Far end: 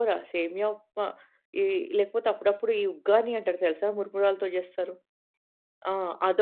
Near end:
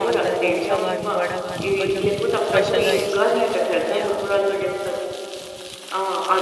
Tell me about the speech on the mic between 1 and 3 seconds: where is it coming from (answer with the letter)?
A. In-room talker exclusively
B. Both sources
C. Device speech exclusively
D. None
B